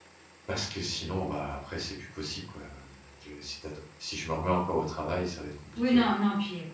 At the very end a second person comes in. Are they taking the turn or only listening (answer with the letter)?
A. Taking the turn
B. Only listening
A